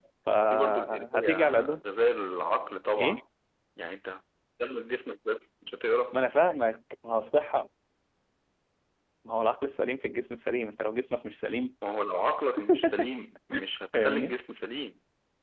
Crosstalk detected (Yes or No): Yes